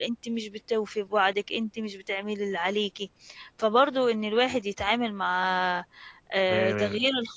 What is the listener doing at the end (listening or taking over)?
listening